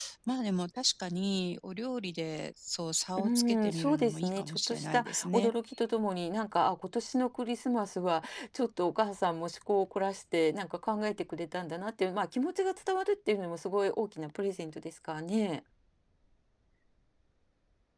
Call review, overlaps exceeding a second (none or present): present